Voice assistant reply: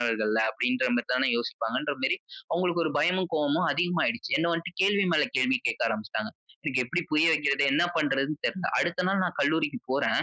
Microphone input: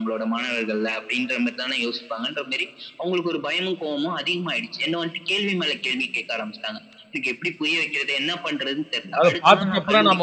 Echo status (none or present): present